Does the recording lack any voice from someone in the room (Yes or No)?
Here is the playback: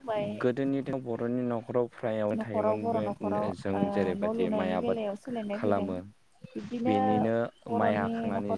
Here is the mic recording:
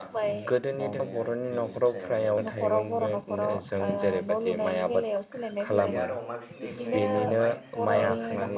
No